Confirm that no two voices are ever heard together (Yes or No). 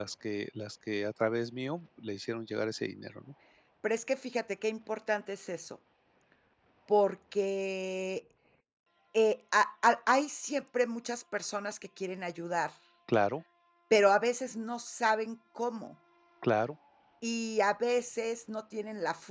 Yes